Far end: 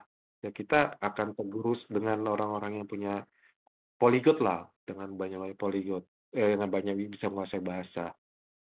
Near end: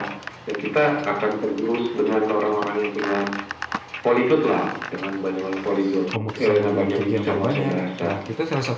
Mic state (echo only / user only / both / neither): both